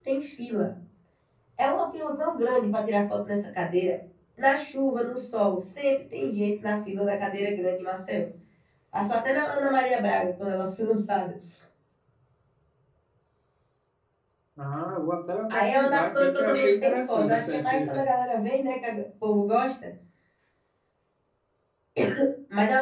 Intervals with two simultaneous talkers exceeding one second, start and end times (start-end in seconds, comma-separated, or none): 15.5-18.0